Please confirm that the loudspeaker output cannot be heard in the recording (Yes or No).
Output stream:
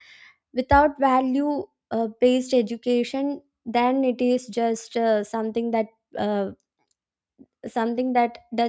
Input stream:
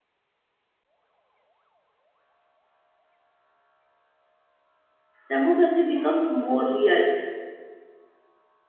Yes